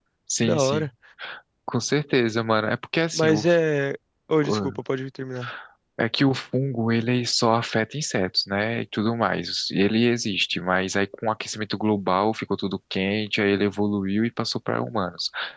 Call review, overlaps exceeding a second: none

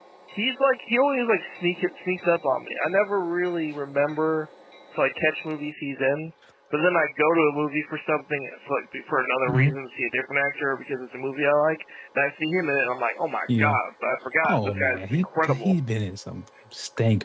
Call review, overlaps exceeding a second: present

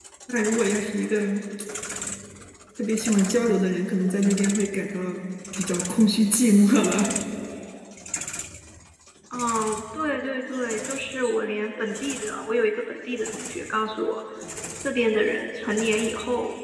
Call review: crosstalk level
none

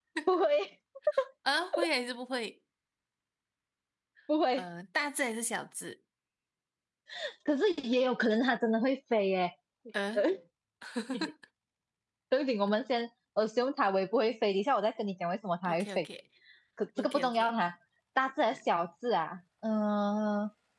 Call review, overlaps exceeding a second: none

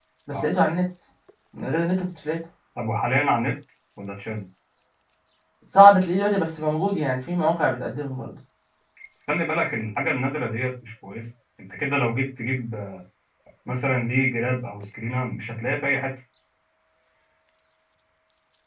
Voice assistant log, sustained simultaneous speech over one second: none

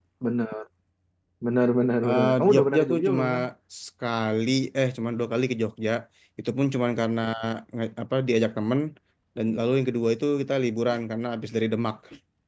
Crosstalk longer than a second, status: present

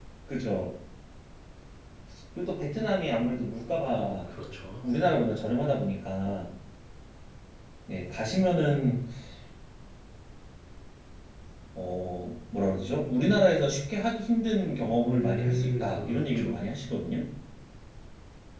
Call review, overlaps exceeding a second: present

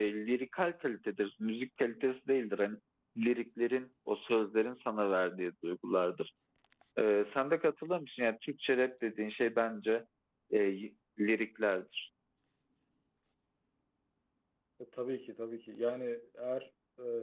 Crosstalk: none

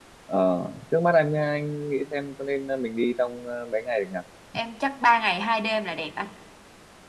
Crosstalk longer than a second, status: none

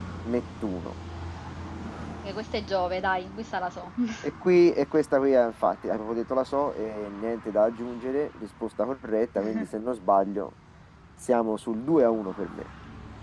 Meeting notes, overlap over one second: none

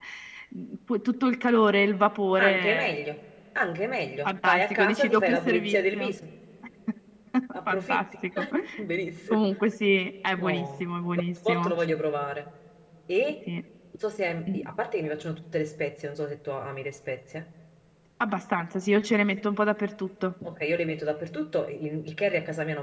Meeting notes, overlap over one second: present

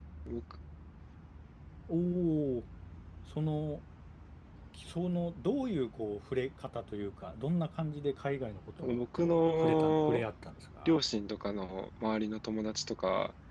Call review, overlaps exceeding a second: present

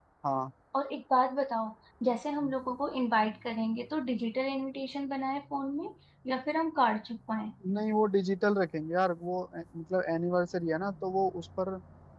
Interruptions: none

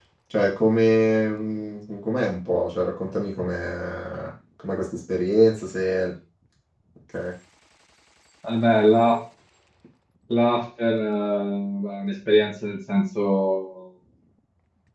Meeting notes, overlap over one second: none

